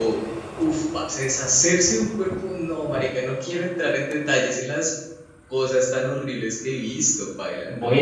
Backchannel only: No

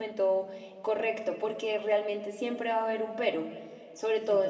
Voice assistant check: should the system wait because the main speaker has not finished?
Yes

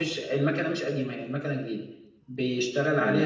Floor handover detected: No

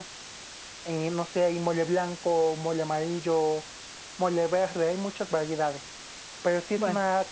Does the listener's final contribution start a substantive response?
No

